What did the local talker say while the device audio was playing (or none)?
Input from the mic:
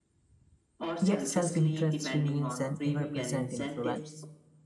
Yet self-interest remains an ever-present influence,